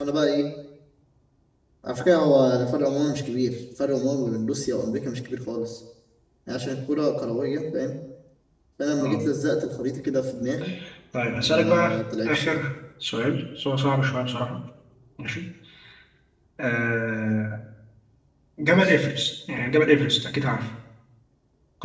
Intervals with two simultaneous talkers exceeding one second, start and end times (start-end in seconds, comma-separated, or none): 11.4-12.6